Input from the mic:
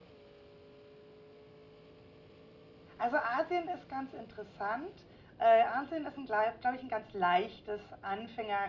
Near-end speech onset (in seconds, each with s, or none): 3.0 s